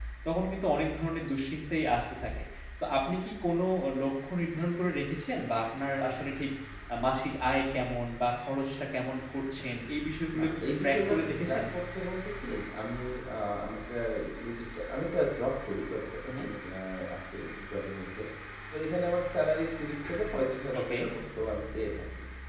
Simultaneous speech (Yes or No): Yes